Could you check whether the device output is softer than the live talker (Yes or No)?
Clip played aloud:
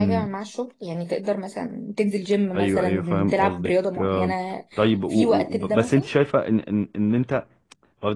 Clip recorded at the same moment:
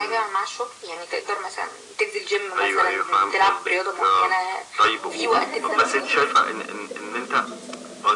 No